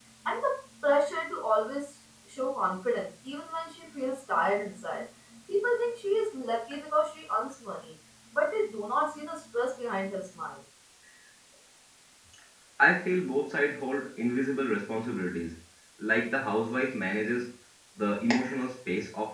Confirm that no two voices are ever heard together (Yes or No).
Yes